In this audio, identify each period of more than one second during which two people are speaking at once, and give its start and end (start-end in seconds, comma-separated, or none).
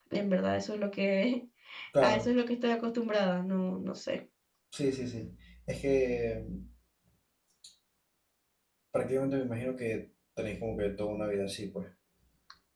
none